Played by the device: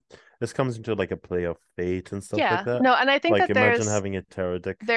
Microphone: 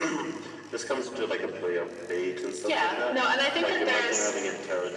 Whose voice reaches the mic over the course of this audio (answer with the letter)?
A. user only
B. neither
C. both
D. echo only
D